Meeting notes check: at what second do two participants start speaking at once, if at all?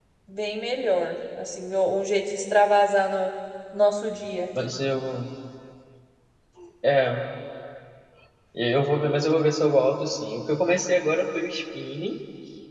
none

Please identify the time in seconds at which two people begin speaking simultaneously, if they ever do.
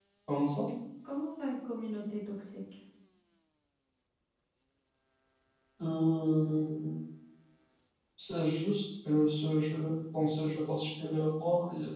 none

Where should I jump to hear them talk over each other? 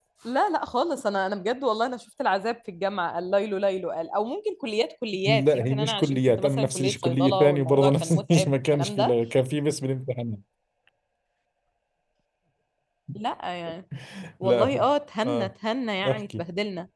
5.2 s

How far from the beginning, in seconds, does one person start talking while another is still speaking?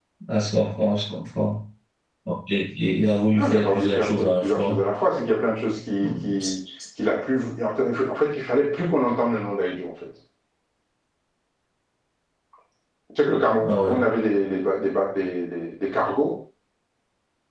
3.3 s

